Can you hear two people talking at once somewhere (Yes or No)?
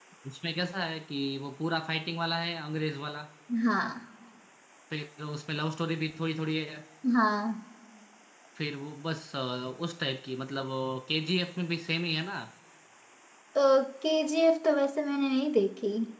No